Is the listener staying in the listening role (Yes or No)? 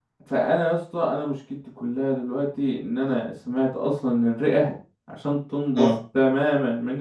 Yes